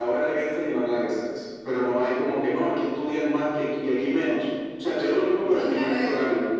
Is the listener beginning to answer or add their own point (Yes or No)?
Yes